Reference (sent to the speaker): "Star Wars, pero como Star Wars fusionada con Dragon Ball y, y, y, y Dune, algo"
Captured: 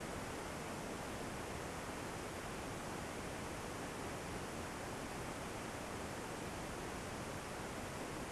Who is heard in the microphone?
neither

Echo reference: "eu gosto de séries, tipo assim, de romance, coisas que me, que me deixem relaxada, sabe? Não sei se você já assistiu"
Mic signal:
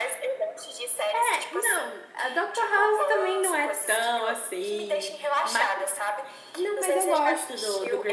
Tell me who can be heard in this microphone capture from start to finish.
both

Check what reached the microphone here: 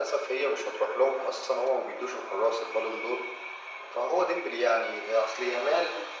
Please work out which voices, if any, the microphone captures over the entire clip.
echo only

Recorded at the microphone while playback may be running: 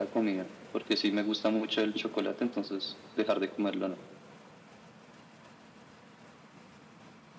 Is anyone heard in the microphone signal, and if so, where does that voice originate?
echo only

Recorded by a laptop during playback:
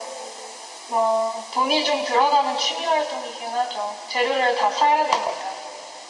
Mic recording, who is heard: echo only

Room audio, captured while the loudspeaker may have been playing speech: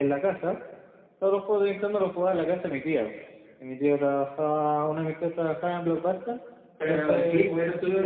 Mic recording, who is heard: both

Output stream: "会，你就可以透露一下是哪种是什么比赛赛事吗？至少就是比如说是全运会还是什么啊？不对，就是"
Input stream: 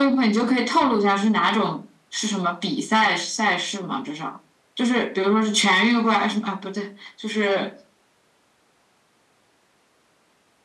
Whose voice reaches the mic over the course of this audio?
echo only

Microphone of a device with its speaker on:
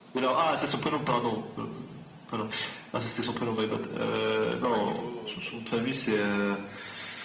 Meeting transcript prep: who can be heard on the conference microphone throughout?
both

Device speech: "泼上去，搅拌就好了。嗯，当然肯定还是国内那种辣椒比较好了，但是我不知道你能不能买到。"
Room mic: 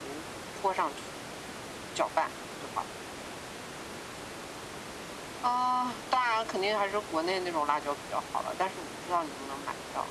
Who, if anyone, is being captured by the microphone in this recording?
echo only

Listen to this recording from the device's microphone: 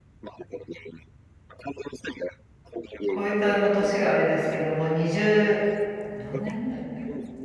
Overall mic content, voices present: both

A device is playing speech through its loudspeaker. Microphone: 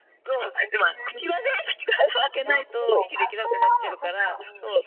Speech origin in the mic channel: echo only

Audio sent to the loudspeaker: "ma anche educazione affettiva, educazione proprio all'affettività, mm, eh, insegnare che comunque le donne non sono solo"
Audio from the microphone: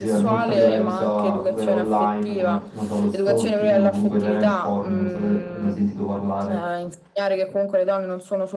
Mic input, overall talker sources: both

